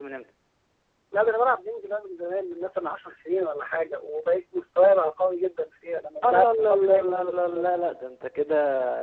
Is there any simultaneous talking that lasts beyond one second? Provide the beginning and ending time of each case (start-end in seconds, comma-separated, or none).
6.2-7.6